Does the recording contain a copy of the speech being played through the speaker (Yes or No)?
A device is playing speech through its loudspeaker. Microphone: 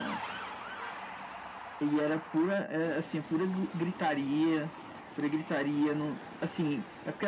Yes